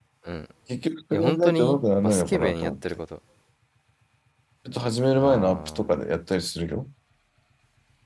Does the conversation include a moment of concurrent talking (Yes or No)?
Yes